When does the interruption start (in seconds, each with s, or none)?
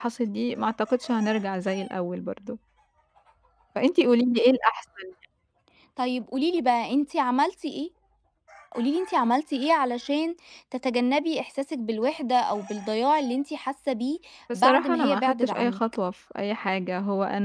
14.5 s